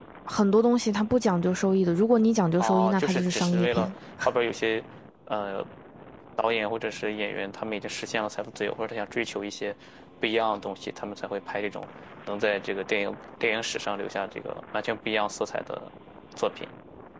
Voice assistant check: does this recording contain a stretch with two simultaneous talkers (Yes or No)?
Yes